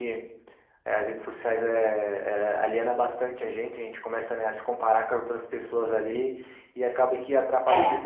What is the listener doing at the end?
listening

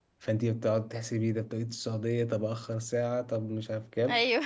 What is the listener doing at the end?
listening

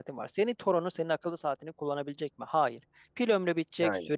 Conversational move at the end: listening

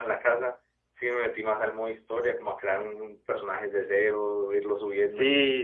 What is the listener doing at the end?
taking over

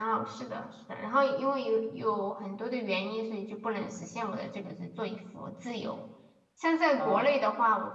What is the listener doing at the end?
listening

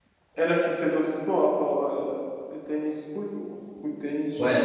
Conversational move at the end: taking over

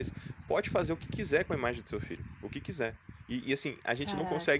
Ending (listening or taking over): listening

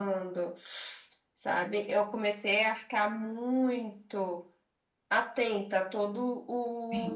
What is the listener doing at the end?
taking over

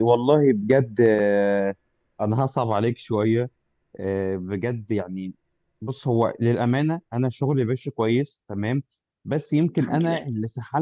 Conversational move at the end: listening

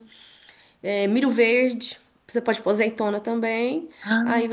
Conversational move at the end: listening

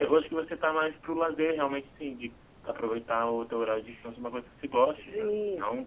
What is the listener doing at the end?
taking over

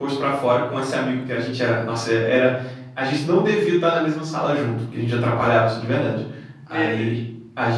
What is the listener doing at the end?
listening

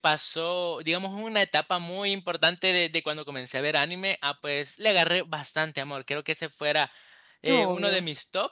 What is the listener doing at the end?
listening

